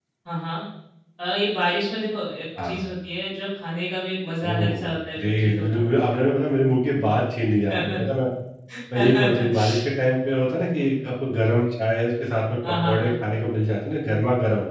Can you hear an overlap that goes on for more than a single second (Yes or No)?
Yes